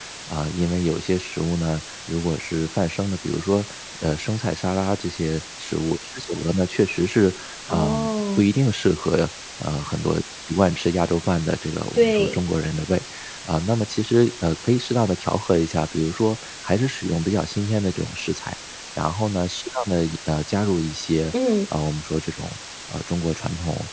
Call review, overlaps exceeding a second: none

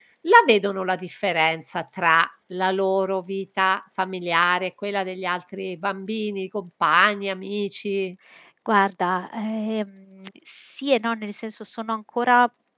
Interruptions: none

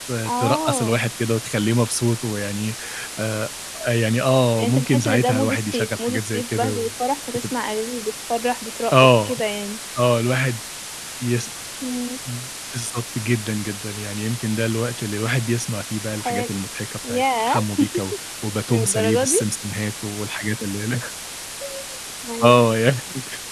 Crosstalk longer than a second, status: present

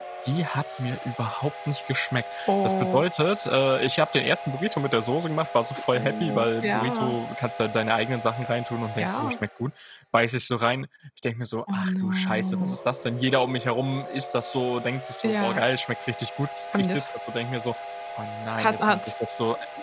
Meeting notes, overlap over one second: present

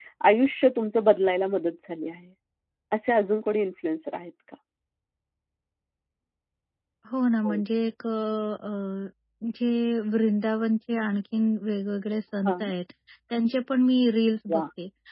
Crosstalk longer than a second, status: none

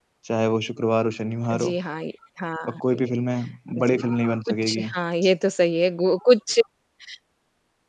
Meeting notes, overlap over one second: none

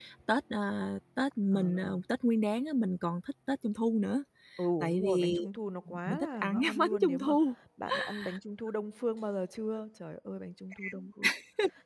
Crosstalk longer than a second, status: present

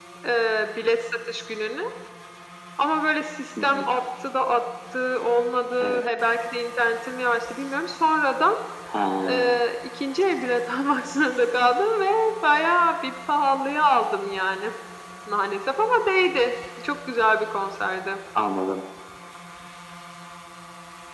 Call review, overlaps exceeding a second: none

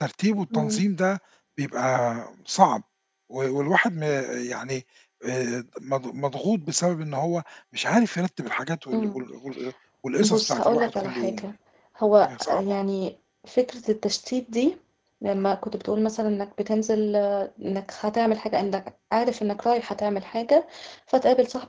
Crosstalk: present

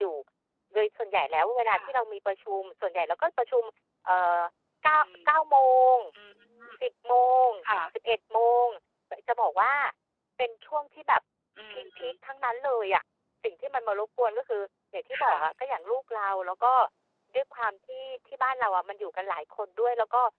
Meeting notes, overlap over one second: none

